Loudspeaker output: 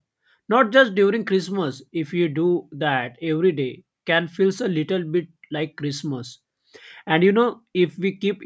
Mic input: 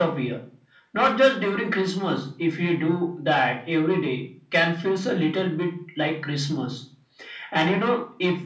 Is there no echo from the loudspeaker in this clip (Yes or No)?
No